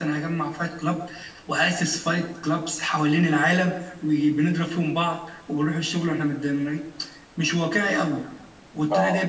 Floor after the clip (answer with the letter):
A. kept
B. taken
A